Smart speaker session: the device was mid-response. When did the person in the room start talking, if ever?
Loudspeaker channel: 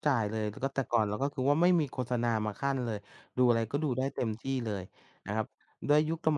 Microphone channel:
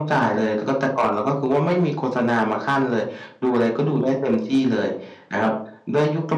none

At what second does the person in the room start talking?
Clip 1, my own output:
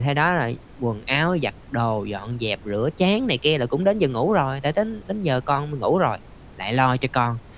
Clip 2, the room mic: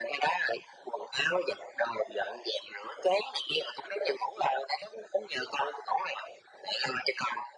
none

